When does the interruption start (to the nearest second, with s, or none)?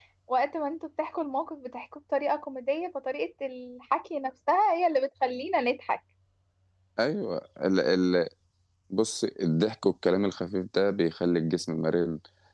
none